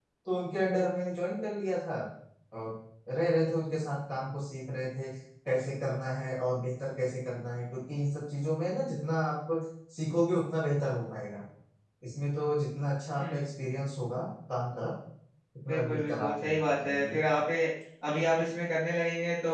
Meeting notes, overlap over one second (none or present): present